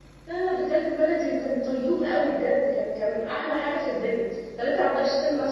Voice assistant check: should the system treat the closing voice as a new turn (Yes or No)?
No